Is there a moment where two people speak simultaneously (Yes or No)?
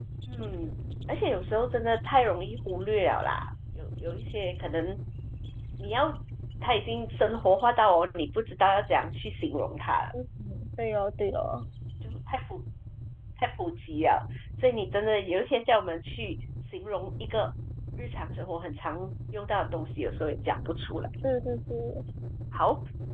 No